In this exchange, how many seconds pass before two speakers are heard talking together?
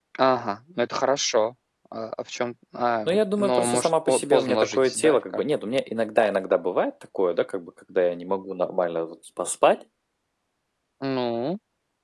3.1 s

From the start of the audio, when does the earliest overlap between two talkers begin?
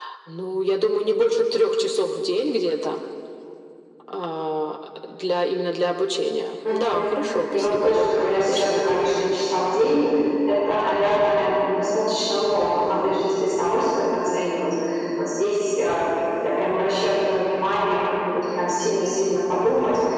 6.6 s

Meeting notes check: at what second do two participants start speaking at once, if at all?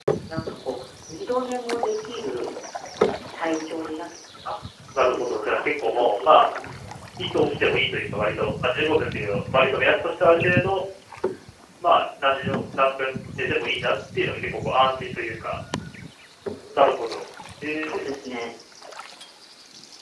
5.1 s

